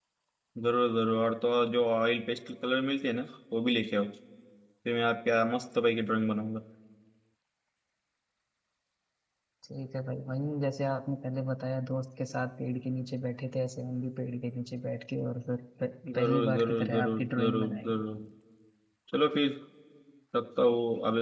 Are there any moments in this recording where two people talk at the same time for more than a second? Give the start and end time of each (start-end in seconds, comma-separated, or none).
16.2-18.0